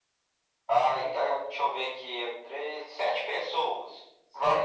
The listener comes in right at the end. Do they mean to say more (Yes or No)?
Yes